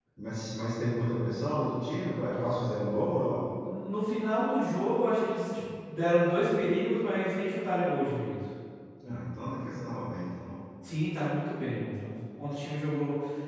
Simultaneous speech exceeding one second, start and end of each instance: none

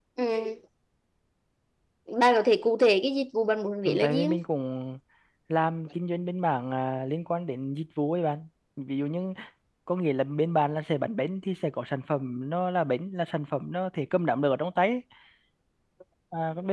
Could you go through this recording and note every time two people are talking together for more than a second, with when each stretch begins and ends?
none

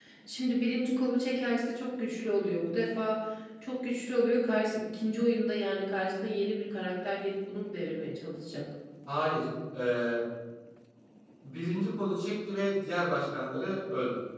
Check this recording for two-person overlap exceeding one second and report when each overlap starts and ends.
none

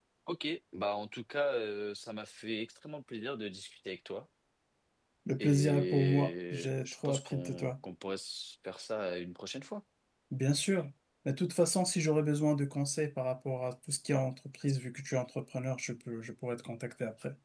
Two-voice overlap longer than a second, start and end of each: 5.4-7.7

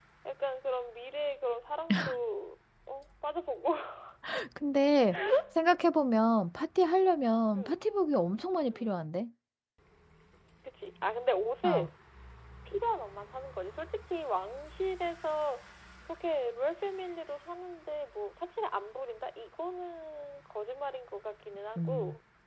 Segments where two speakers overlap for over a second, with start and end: none

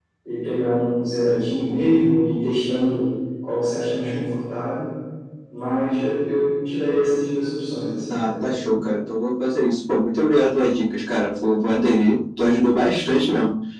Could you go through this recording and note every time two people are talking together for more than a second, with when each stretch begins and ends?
none

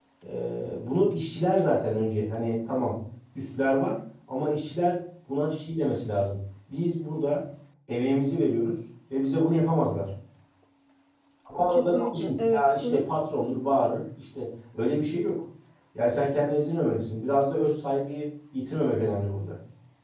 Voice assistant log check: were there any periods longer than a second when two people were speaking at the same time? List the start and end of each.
11.7-13.0

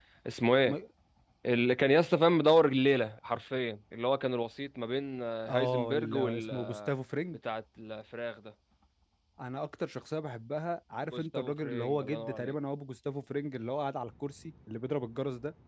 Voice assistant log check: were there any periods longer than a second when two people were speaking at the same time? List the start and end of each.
5.5-6.9, 11.1-12.5

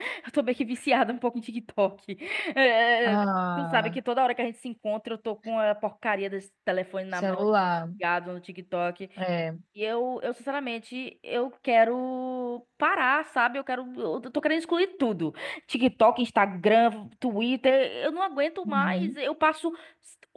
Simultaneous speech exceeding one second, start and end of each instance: none

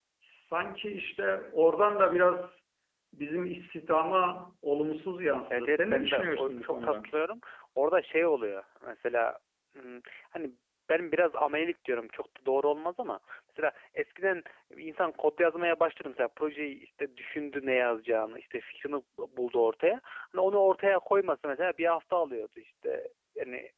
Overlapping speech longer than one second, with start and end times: 5.5-7.1

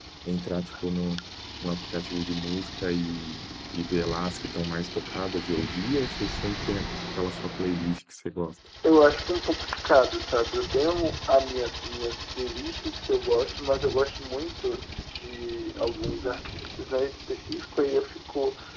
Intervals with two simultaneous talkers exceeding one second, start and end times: none

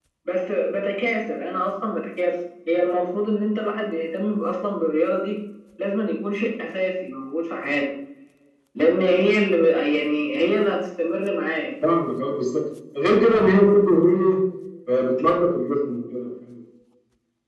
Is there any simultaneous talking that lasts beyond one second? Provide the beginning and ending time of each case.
none

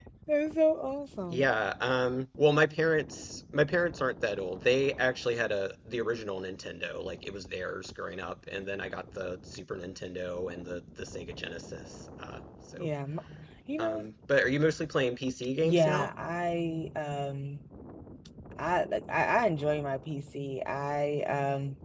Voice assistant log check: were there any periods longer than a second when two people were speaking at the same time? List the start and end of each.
none

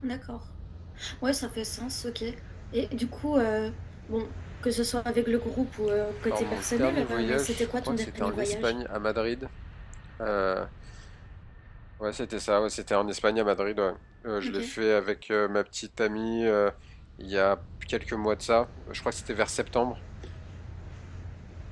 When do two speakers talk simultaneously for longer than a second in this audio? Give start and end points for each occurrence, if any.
6.3-8.7

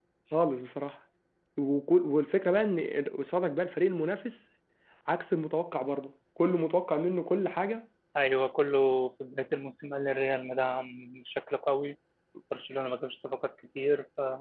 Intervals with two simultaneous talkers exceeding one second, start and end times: none

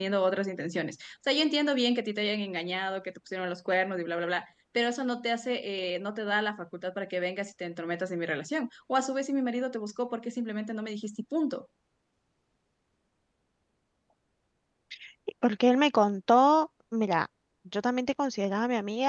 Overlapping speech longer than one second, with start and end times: none

